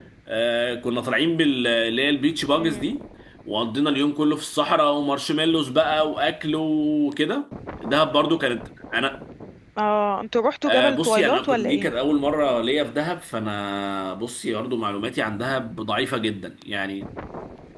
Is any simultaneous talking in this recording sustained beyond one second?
Yes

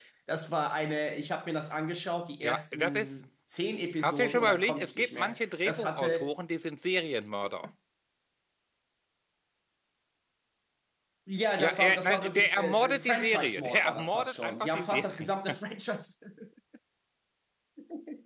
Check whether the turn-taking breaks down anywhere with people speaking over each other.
Yes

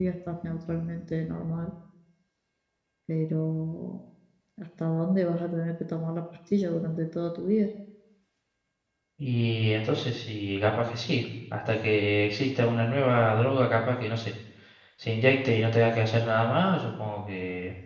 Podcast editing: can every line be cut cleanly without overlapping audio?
Yes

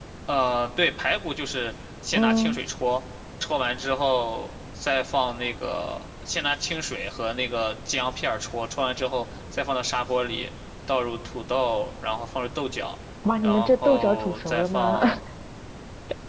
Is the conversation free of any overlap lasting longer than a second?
No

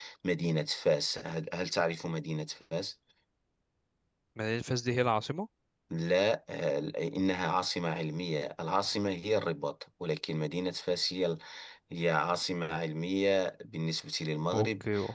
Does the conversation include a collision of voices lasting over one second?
No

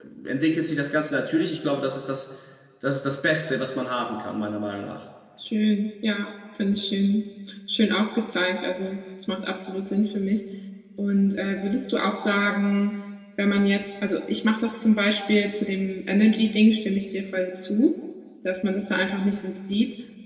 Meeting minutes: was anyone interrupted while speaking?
No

